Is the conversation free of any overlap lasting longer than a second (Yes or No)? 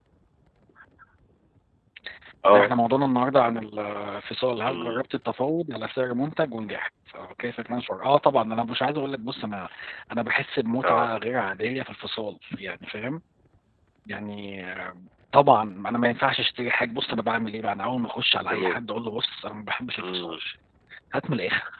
Yes